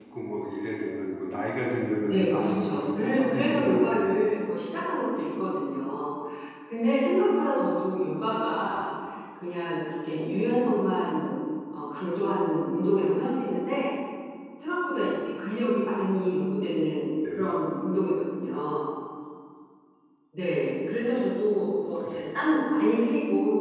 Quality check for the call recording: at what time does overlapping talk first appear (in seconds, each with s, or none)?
2.1 s